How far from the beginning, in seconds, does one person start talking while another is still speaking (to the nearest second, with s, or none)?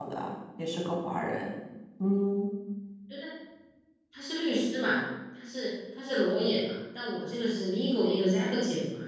none